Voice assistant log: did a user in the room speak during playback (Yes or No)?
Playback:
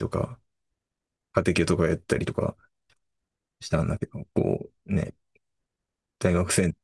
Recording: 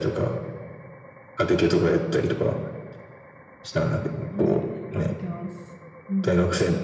Yes